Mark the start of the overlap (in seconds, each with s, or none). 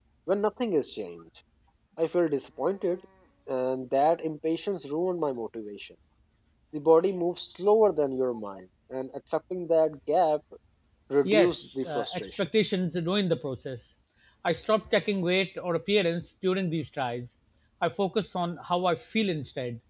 11.2 s